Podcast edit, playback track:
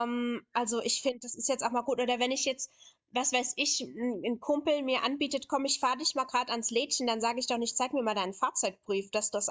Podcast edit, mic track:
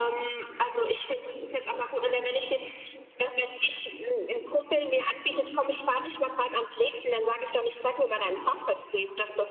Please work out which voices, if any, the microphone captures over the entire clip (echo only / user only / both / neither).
echo only